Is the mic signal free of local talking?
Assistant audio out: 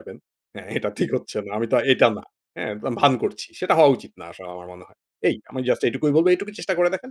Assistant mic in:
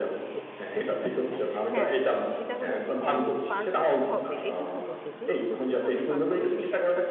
No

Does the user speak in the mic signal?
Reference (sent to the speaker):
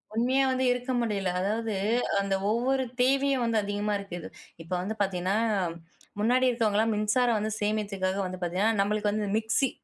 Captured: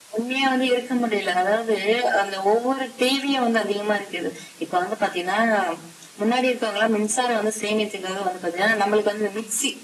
No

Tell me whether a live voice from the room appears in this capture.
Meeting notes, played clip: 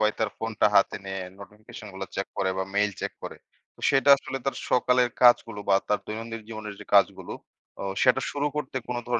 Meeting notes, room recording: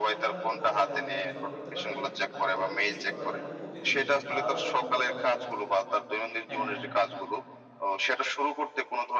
Yes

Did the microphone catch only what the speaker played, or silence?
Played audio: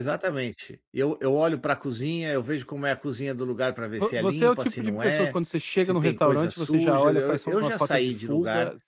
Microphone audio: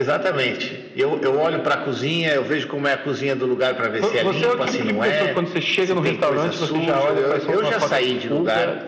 Yes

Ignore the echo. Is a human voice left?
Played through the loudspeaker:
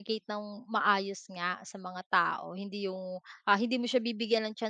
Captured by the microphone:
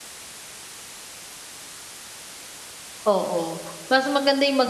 Yes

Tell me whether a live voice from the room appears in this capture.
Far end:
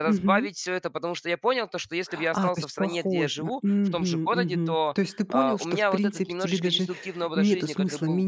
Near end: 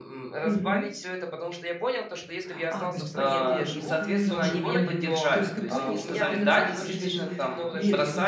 Yes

